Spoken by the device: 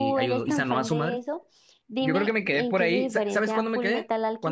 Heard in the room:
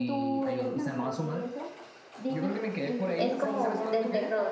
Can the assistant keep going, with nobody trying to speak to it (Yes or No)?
No